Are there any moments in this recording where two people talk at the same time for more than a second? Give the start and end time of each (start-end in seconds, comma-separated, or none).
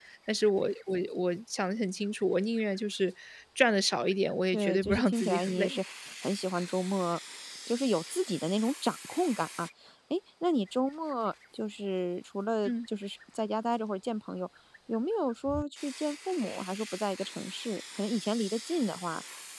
4.5-5.8